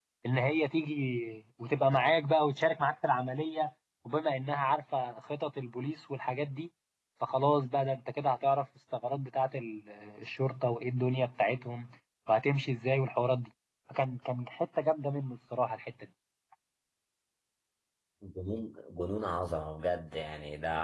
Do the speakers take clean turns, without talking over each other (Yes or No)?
Yes